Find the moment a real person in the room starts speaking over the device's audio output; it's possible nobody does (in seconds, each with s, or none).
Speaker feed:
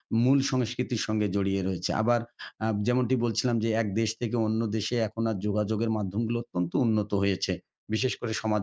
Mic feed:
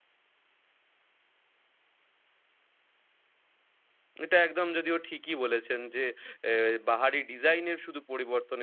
4.2 s